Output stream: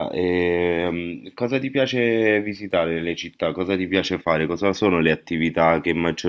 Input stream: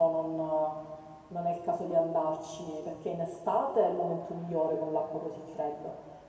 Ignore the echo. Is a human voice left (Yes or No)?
Yes